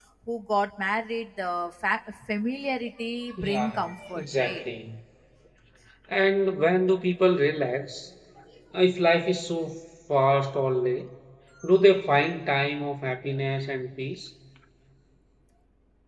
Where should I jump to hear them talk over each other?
3.4 s

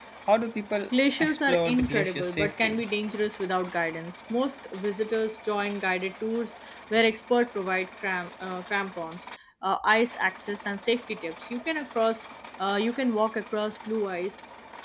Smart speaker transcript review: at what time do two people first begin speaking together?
1.2 s

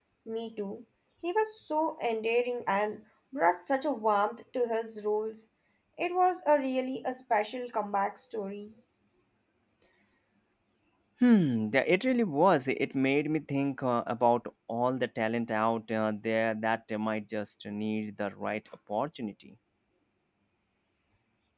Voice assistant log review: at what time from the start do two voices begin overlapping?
none

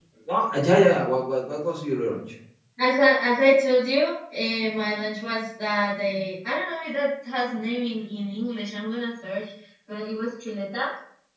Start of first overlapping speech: none

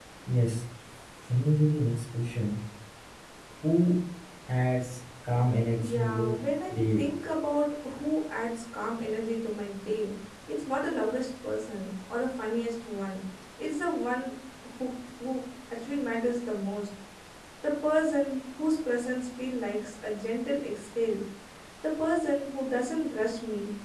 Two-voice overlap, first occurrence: 5.8 s

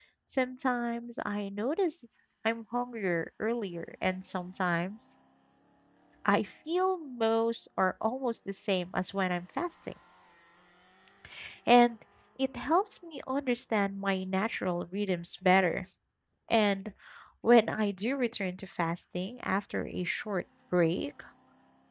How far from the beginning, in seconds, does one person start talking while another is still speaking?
none

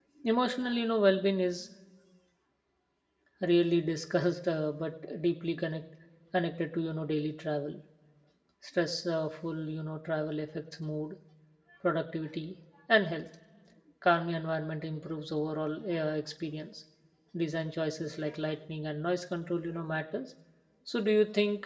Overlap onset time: none

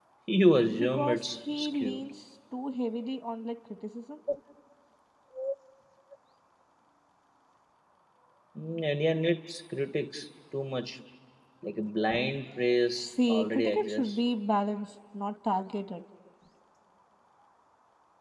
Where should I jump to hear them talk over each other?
0.8 s

